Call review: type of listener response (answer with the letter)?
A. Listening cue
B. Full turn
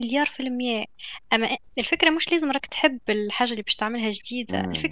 A